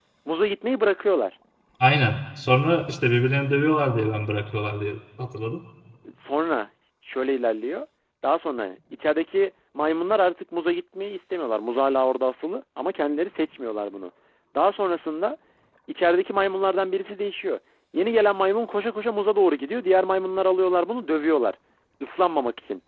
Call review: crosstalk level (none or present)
none